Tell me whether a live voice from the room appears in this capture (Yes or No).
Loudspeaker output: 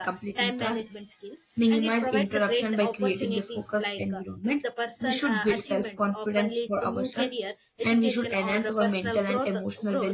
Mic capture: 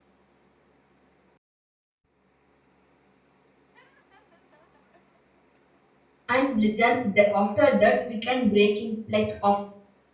Yes